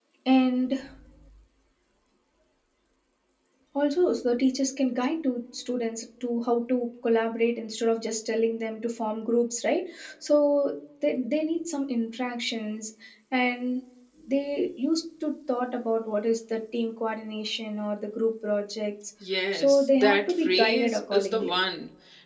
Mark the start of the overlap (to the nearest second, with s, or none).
20 s